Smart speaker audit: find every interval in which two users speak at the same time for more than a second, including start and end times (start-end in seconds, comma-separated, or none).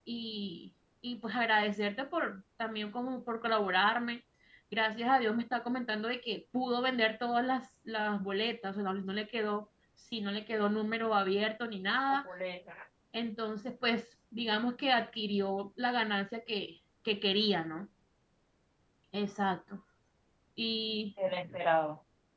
none